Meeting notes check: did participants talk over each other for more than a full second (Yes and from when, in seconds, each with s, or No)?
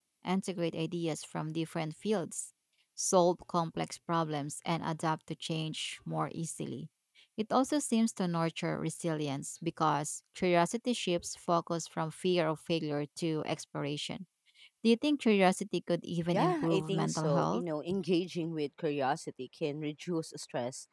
Yes, from 16.3 s